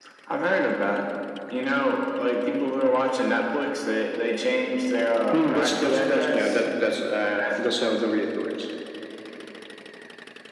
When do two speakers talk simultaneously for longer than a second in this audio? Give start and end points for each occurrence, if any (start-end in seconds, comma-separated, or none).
5.3-6.6